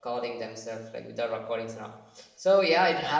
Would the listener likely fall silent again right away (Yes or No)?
Yes